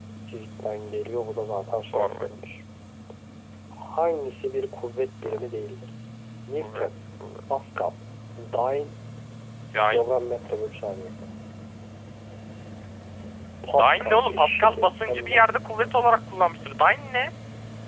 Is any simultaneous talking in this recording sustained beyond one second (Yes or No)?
Yes